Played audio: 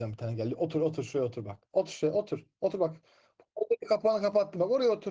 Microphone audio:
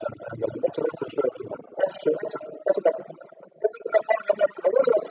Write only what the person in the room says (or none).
none